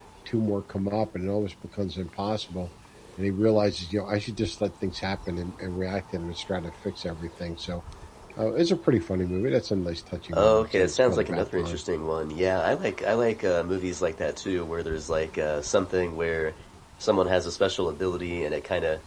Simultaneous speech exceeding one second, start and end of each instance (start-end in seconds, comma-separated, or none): 10.3-11.8